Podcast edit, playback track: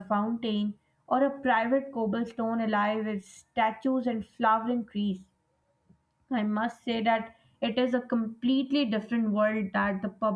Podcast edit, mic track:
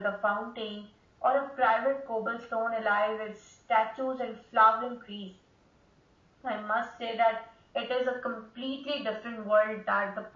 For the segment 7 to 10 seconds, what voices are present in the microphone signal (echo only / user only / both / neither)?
echo only